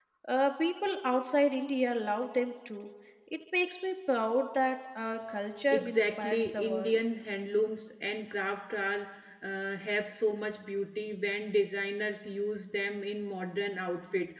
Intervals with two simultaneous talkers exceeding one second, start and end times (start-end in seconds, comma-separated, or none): 5.7-7.0